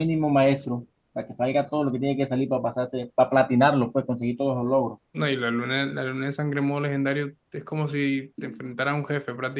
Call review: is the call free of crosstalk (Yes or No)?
Yes